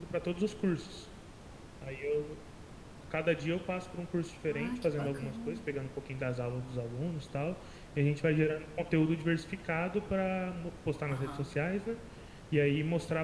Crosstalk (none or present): present